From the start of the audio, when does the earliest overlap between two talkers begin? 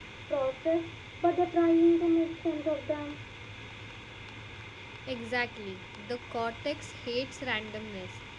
none

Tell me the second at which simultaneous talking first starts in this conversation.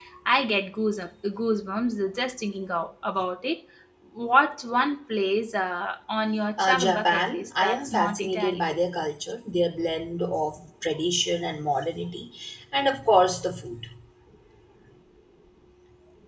7 s

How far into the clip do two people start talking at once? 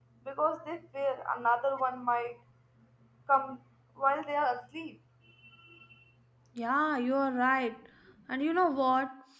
none

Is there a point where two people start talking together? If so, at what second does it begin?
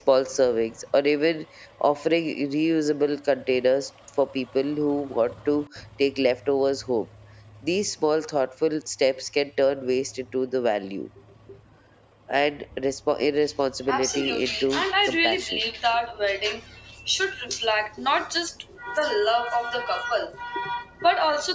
14 s

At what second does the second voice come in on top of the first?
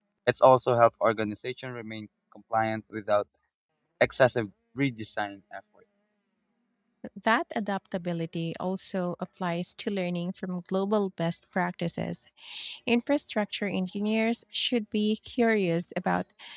none

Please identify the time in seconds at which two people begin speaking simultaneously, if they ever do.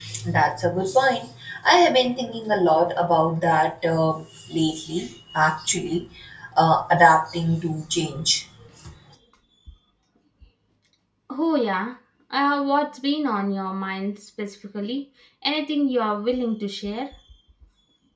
none

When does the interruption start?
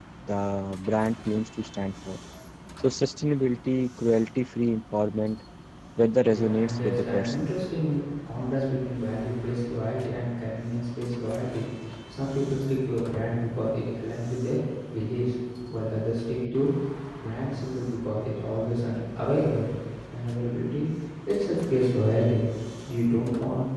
6 s

